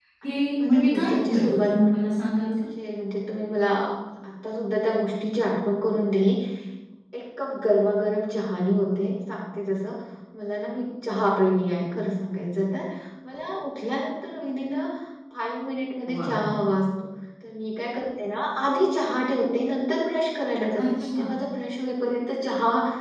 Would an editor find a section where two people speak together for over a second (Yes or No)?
Yes